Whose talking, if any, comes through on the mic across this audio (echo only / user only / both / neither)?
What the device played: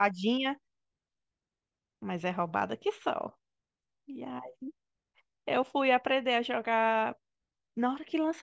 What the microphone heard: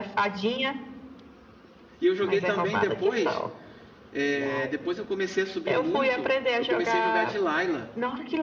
both